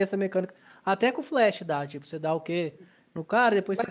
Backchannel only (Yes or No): Yes